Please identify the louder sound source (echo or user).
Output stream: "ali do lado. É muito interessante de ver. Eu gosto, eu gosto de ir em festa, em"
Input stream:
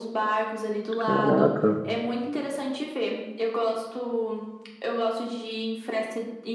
user